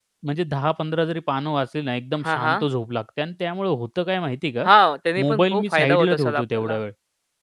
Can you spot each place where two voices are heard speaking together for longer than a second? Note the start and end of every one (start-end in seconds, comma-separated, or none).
5.2-6.8